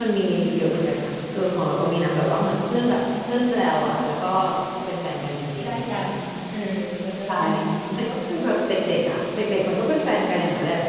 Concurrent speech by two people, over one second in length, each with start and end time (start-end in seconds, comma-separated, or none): none